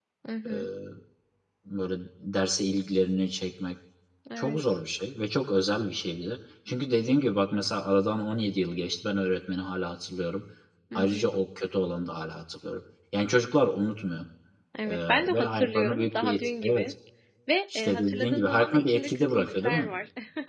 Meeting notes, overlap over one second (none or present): present